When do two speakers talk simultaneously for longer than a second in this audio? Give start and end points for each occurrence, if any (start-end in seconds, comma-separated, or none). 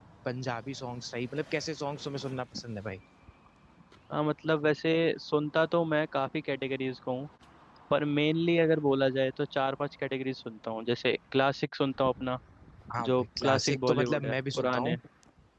13.0-15.0